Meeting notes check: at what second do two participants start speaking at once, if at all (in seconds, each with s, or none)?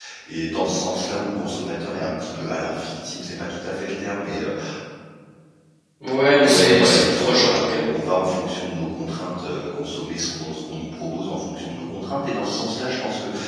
6.4 s